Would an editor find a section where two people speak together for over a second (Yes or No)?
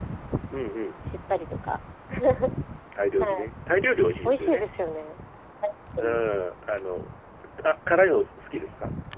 No